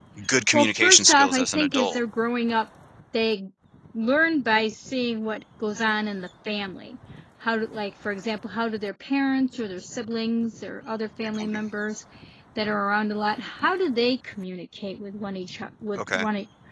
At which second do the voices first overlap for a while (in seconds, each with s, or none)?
0.5 s